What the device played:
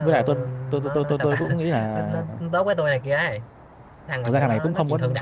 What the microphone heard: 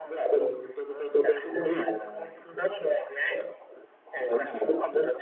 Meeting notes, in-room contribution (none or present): none